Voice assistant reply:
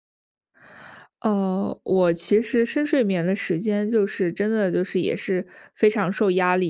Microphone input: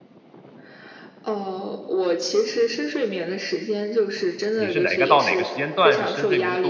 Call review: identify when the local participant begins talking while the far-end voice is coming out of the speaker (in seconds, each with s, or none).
4.5 s